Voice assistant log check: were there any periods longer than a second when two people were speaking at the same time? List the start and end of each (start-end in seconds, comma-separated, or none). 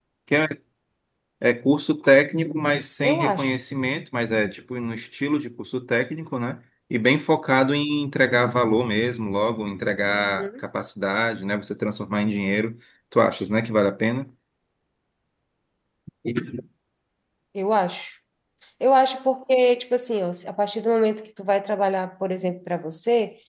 none